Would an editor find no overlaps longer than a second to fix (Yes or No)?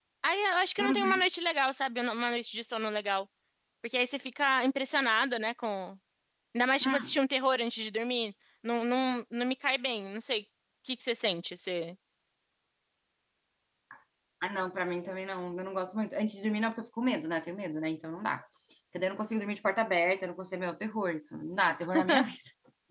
Yes